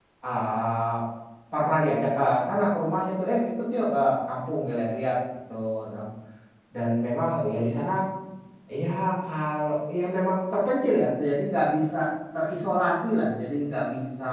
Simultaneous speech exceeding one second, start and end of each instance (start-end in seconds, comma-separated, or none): none